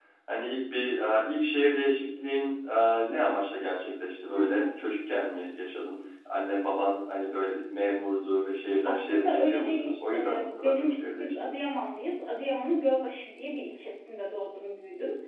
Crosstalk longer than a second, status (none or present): present